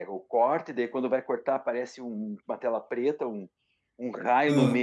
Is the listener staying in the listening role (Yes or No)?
Yes